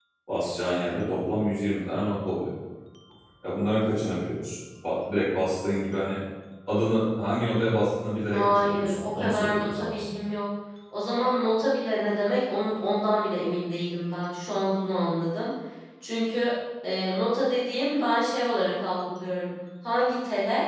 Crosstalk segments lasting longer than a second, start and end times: 8.3-10.1

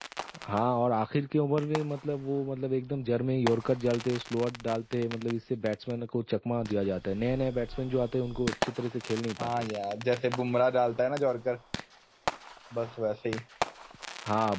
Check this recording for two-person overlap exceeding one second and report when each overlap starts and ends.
none

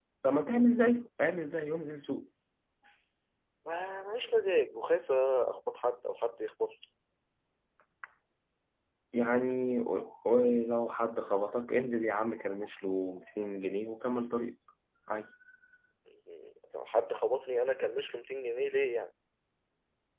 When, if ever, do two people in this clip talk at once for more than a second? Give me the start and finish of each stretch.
none

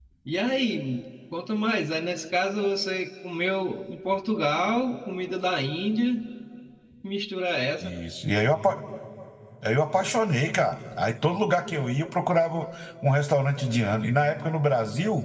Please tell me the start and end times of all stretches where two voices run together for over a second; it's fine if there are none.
none

